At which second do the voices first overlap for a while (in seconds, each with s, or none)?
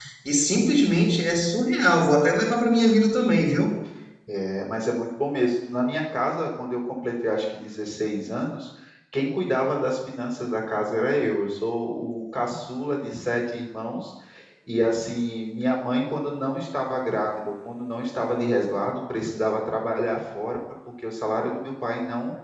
none